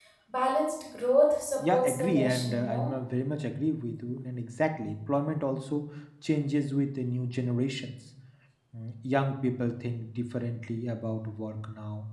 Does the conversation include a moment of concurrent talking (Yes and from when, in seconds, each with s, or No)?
Yes, from 1.6 s